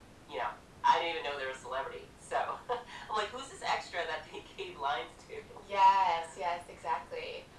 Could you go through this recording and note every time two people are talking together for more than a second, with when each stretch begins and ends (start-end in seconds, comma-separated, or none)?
none